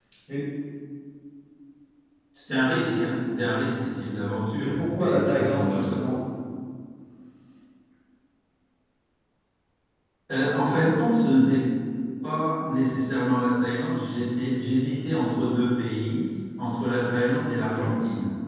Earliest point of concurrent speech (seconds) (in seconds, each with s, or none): 4.6 s